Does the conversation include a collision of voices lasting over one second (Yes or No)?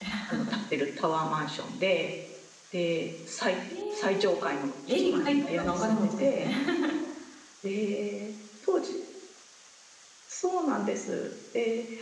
Yes